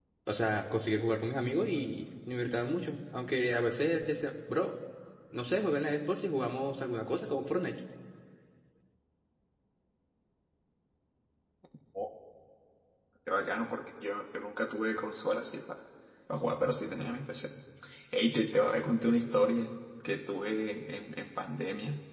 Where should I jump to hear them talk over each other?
none

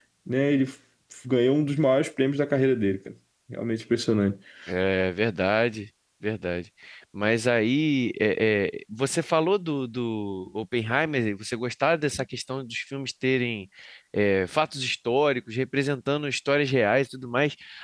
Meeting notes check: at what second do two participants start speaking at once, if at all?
none

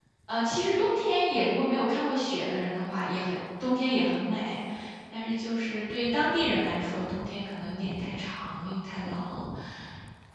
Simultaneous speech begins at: none

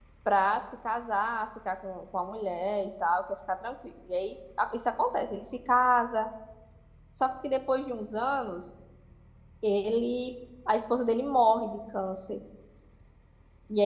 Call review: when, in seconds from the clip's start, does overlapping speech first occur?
none

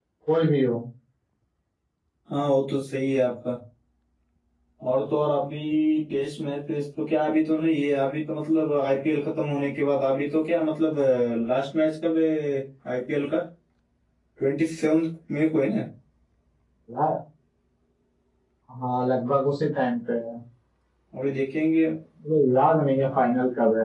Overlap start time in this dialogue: none

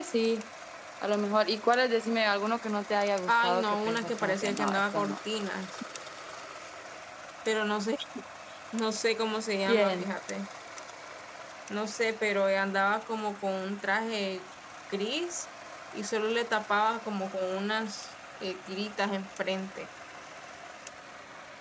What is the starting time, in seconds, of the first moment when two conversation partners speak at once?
3.3 s

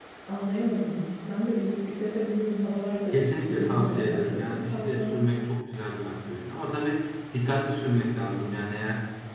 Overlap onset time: 3.4 s

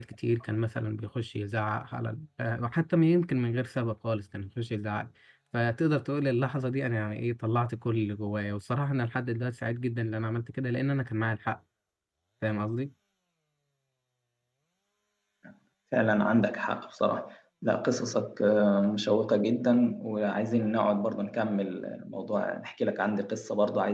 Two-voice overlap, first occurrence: none

